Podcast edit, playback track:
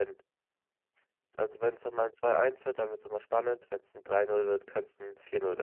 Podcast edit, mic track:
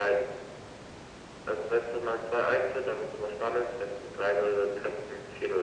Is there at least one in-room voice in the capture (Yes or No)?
No